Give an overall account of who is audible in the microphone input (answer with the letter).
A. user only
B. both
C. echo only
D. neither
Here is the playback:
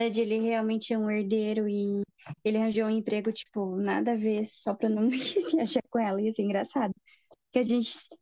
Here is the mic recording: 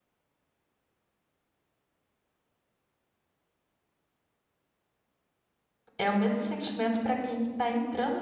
A